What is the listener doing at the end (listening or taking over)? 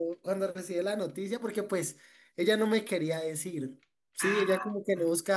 listening